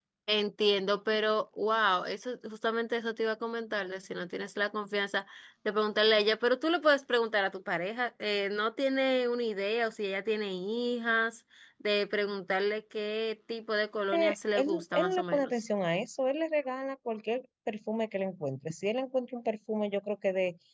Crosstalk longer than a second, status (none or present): present